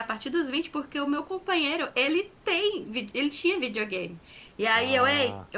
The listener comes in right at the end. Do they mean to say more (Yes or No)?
No